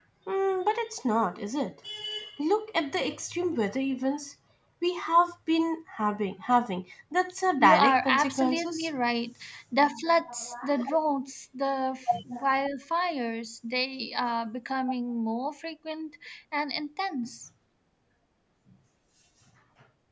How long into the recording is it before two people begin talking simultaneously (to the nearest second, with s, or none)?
8 s